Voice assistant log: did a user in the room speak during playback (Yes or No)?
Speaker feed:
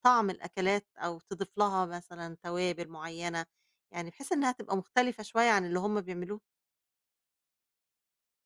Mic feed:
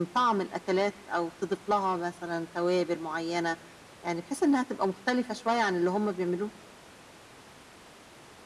No